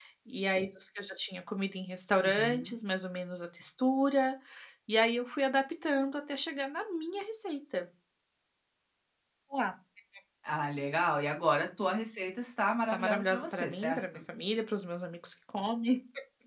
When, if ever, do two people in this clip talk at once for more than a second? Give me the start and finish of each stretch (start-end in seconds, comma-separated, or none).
12.8-14.2